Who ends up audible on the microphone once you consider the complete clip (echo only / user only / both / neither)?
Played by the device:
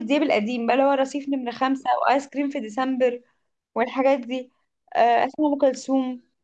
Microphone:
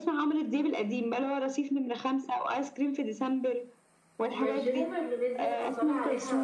both